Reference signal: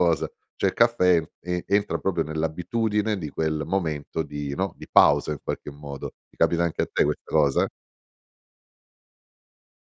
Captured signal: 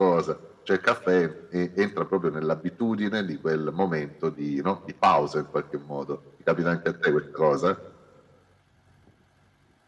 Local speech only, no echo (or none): none